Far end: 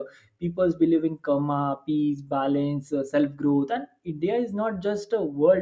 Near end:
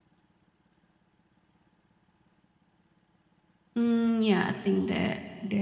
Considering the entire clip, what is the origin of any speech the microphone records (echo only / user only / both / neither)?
user only